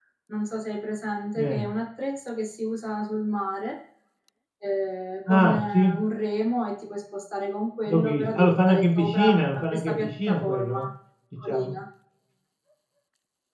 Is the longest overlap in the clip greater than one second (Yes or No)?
Yes